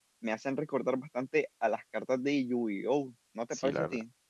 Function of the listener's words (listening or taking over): taking over